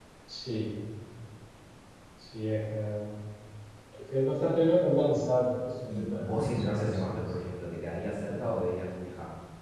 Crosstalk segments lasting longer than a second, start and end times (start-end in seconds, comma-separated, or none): 5.9-7.2